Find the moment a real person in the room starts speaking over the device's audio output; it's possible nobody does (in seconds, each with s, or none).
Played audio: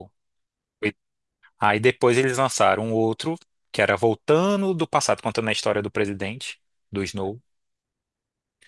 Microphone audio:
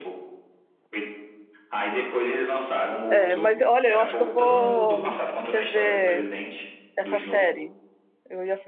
3.1 s